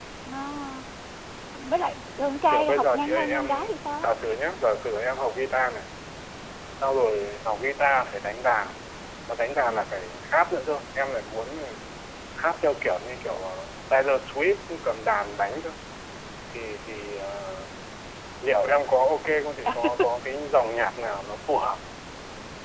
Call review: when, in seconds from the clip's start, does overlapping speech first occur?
2.5 s

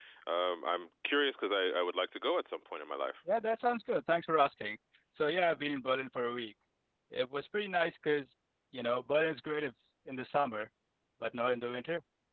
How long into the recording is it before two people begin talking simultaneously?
none

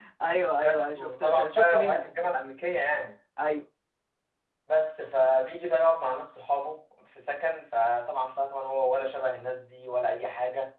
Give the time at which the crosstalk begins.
0.6 s

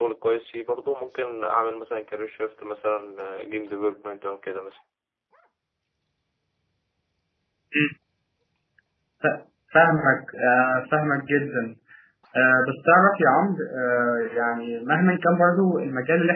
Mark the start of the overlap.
none

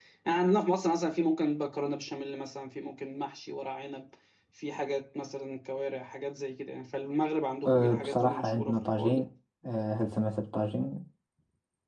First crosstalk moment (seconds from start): 7.7 s

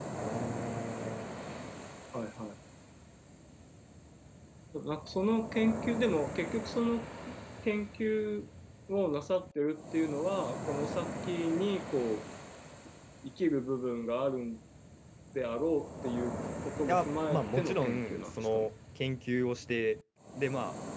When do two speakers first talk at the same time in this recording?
16.9 s

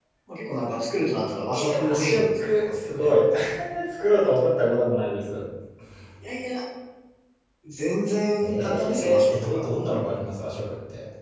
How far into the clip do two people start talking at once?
1.5 s

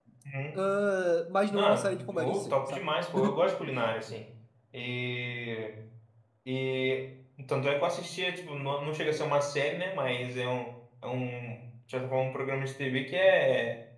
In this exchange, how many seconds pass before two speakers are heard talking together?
1.5 s

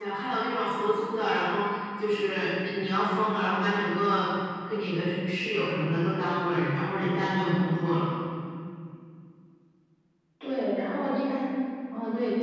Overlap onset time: none

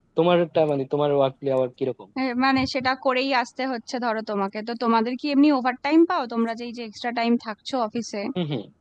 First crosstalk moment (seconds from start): none

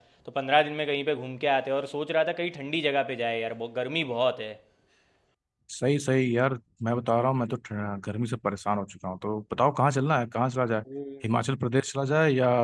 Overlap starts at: none

